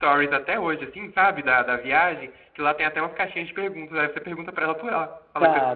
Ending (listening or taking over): taking over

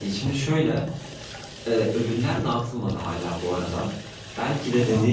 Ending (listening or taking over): listening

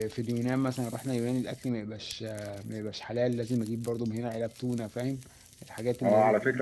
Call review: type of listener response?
taking over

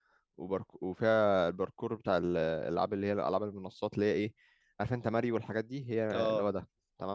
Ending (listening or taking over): listening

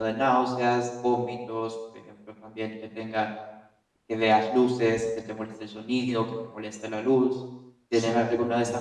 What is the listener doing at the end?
taking over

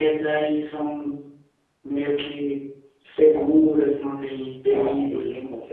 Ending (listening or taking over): taking over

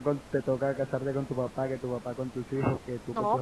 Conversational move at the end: taking over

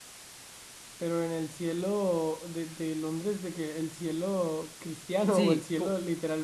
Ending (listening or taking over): taking over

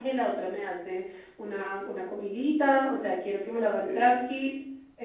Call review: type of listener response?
listening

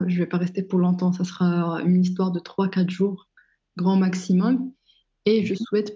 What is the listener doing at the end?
listening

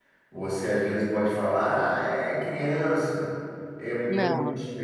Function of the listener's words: listening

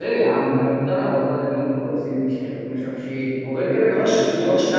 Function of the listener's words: taking over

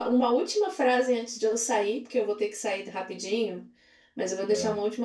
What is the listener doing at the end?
listening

